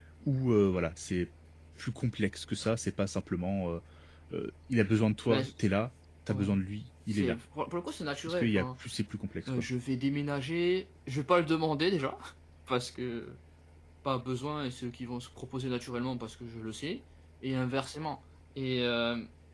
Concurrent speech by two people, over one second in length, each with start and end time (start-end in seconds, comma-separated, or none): none